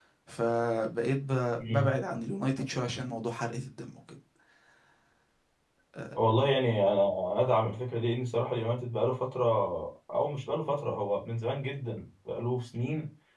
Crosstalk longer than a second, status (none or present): none